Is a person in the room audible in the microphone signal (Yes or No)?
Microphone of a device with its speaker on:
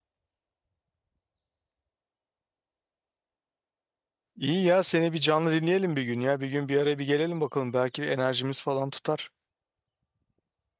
Yes